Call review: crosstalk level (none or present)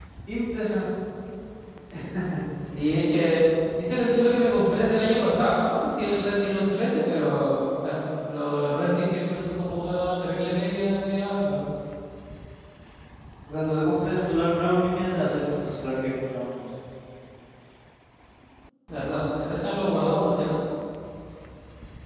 none